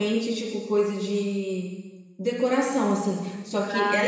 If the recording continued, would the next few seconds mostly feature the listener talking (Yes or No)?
No